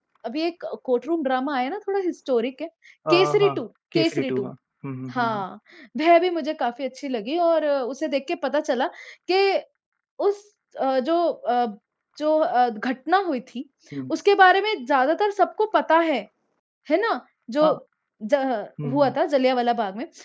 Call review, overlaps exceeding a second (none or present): none